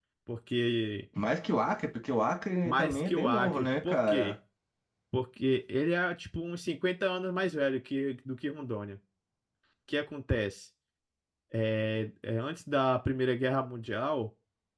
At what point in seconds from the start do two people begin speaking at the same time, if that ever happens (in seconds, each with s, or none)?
2.6 s